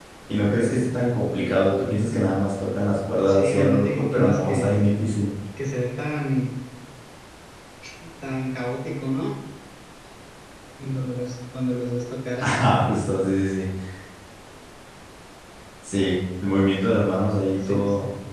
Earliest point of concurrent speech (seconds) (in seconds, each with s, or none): 3.3 s